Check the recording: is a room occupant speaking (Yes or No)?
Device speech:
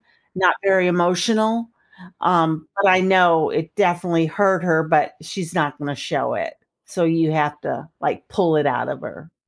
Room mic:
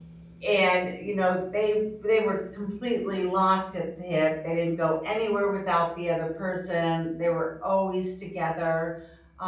Yes